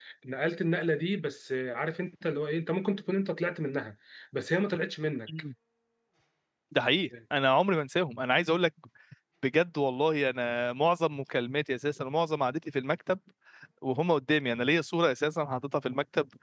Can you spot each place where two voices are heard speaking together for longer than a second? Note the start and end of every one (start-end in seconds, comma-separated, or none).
none